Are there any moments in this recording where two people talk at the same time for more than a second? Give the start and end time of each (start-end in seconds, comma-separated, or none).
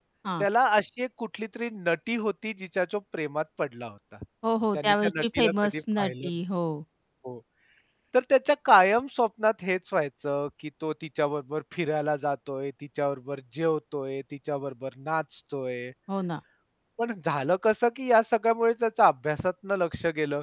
4.7-6.3